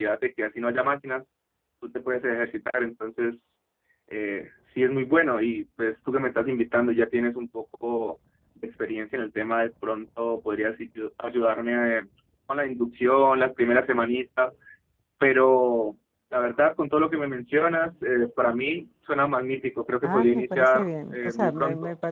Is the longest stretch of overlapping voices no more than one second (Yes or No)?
No